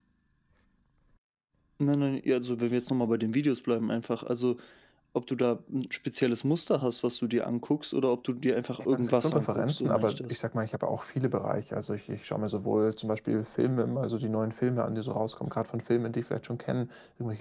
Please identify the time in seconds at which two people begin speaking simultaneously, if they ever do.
8.9 s

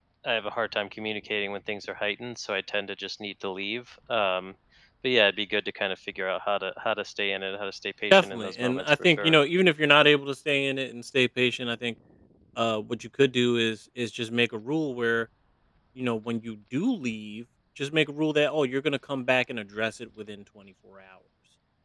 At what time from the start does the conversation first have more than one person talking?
8.1 s

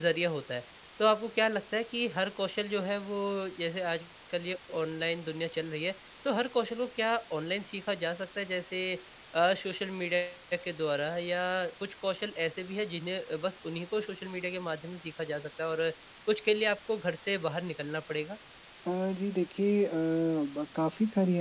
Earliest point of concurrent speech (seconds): none

